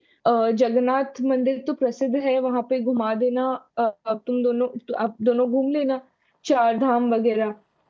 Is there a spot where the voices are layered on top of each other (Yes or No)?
No